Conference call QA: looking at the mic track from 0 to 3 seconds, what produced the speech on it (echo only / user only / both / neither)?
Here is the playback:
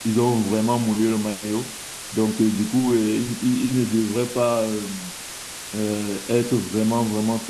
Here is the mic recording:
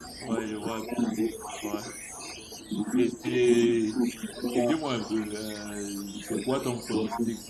both